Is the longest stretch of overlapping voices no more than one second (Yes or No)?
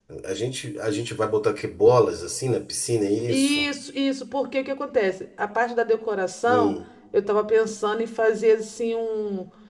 Yes